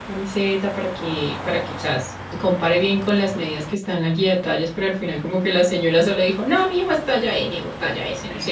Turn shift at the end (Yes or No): Yes